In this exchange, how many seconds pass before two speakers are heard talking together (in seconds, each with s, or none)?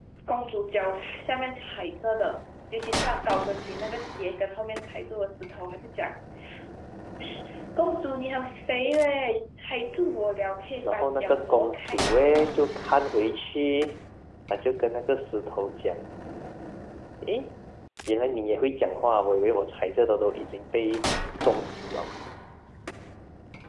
10.8 s